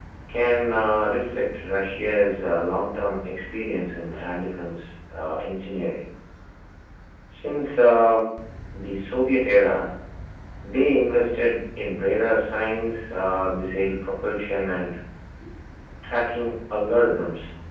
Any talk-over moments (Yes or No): No